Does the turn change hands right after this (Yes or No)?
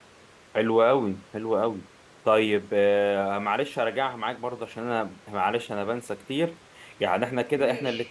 No